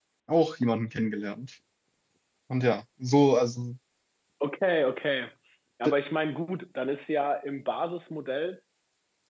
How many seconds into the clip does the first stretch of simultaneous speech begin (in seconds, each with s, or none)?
none